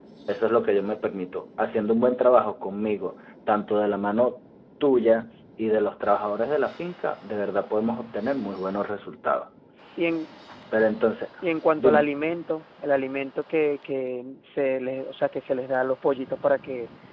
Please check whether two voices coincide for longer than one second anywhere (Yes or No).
No